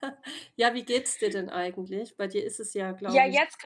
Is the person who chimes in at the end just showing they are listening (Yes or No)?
No